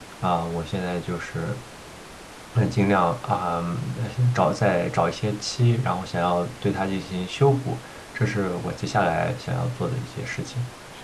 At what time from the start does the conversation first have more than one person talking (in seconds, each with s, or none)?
none